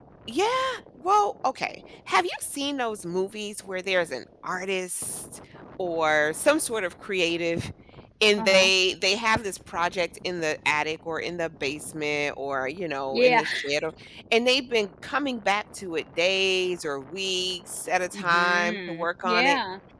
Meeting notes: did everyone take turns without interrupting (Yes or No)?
No